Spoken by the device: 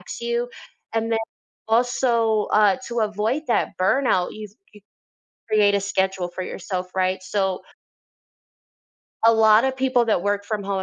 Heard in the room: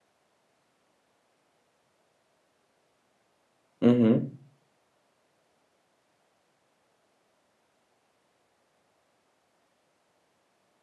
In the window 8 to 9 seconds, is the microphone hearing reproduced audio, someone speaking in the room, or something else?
neither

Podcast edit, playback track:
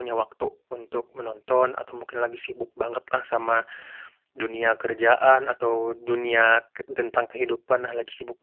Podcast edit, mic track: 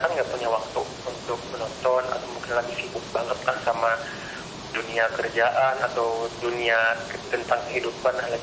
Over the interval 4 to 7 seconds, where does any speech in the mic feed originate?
echo only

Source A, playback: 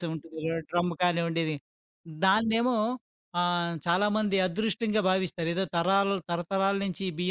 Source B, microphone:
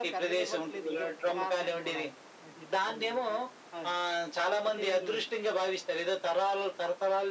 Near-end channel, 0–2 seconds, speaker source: both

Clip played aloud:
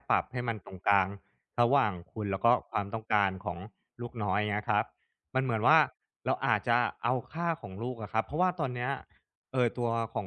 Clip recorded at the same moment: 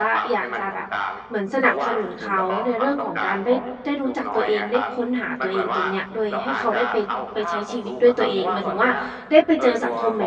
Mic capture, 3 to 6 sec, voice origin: both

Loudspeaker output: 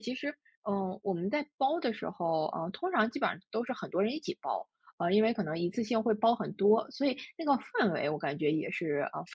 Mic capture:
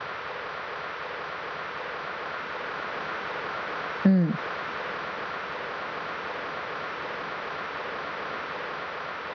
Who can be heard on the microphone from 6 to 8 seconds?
neither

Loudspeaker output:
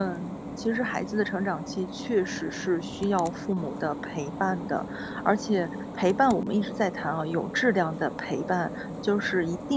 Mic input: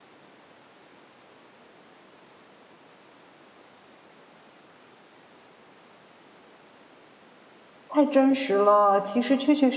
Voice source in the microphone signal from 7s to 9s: user only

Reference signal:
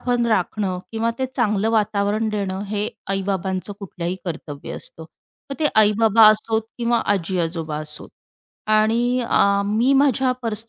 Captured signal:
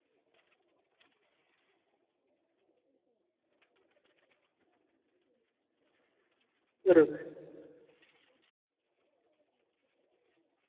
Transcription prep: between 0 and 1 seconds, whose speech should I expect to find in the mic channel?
neither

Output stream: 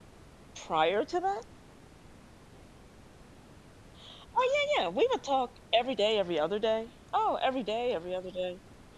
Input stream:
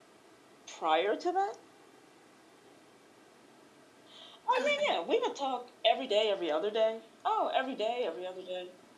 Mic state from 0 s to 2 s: echo only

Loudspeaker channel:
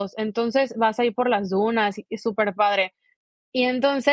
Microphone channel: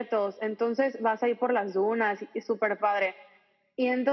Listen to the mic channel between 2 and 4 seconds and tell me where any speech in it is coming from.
echo only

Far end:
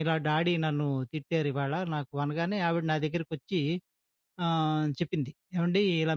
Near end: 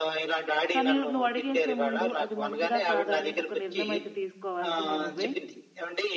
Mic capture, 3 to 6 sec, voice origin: both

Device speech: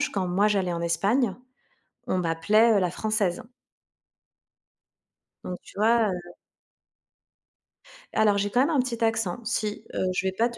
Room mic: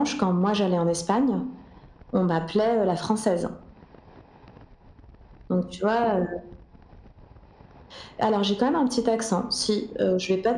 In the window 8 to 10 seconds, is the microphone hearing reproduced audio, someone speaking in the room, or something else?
echo only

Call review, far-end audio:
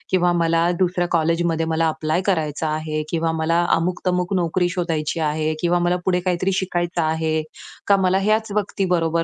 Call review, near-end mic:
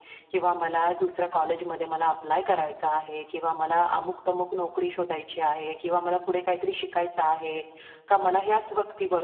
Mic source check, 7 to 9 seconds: echo only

